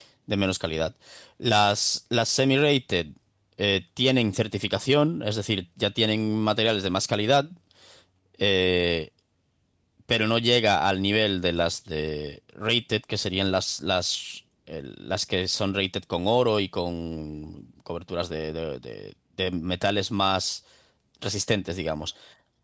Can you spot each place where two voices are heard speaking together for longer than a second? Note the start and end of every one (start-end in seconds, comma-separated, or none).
none